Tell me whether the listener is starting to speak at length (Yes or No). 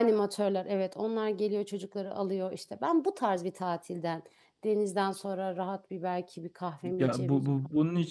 Yes